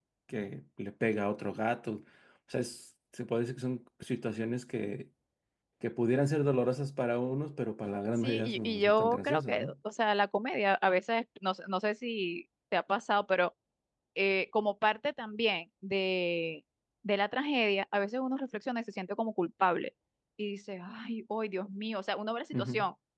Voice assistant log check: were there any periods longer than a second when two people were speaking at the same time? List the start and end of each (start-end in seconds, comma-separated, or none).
8.2-9.7